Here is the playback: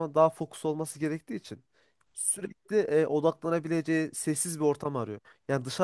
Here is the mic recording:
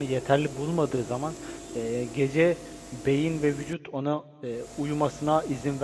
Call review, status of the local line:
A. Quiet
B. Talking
B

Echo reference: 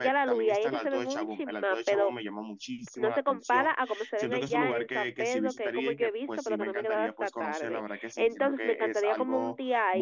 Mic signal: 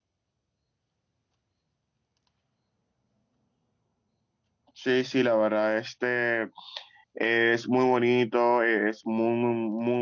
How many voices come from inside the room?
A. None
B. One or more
B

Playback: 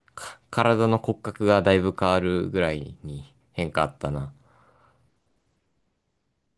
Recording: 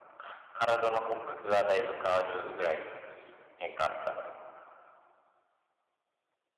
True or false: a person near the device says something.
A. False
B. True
A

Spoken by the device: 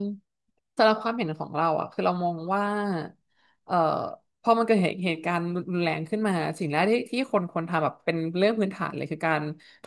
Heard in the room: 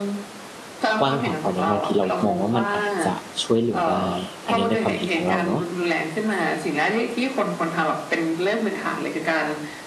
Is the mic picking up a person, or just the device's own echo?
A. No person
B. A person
B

